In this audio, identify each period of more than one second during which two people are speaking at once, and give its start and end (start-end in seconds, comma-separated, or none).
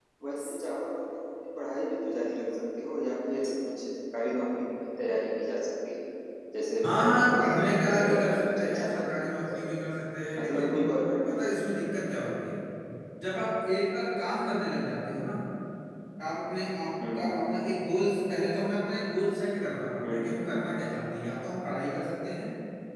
6.8-9.6